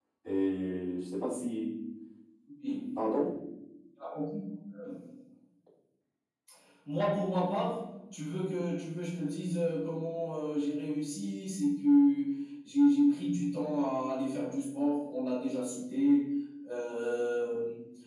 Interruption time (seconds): none

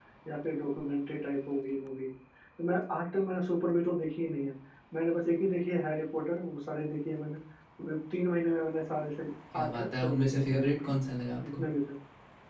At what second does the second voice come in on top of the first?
9.5 s

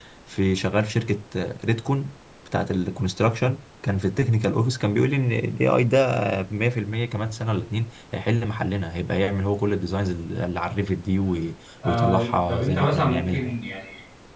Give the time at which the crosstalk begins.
11.8 s

